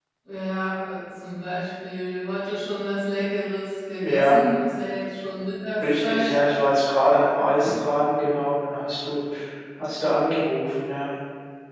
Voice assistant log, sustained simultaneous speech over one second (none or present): none